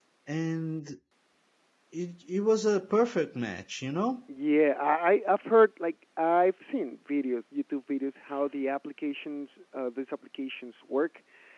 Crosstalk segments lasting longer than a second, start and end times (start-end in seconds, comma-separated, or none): none